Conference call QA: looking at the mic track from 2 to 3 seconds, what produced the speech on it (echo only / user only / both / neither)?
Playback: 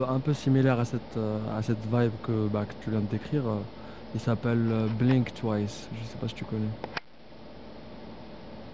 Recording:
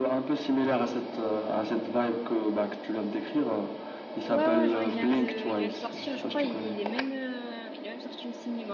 echo only